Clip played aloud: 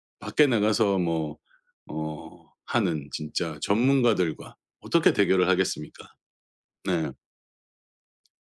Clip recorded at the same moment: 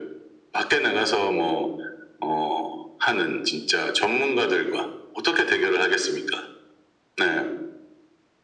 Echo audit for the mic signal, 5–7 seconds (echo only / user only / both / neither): echo only